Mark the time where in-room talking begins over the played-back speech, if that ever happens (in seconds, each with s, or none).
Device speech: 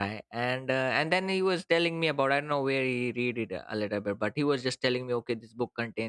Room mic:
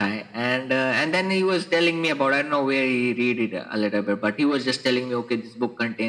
none